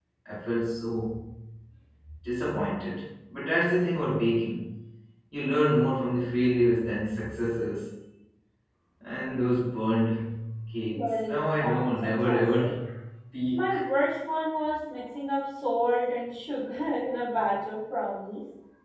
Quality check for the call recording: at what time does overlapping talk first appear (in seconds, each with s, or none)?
10.9 s